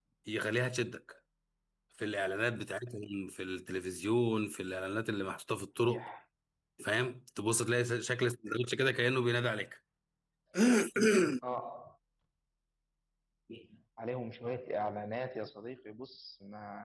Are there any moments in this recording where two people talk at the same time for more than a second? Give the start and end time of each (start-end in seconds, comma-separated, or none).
none